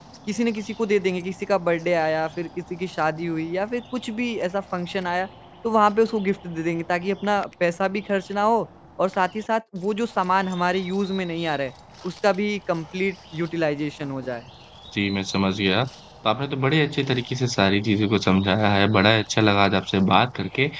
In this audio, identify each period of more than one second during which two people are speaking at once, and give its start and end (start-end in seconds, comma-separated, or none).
none